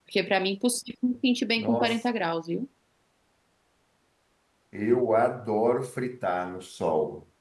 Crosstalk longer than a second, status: none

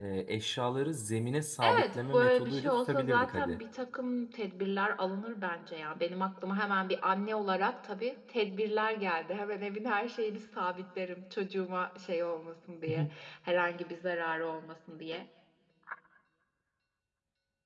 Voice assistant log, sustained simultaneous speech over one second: present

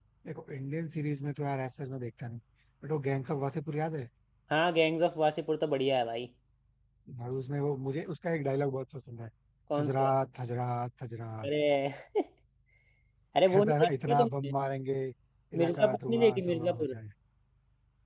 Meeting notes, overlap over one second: present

